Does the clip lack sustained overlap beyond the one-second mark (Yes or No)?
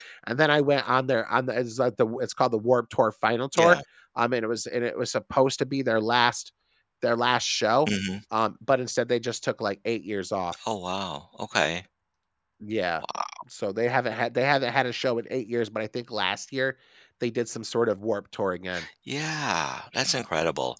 Yes